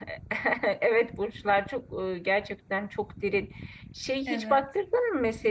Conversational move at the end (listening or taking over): listening